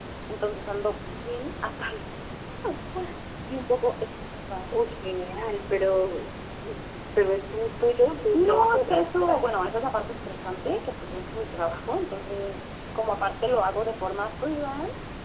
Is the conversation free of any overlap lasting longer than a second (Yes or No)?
No